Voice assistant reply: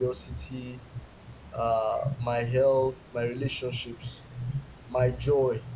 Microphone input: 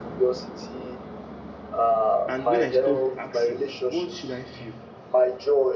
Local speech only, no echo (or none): and when I stop asking, what should I feel,